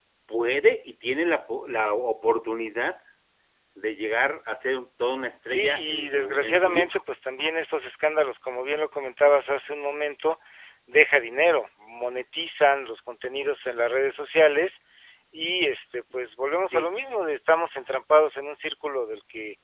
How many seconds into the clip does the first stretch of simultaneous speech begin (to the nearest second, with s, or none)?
5 s